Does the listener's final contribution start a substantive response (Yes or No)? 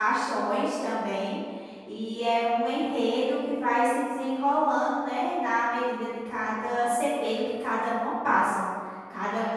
No